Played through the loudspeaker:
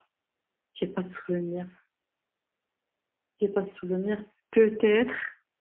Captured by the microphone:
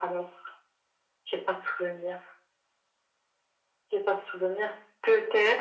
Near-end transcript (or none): none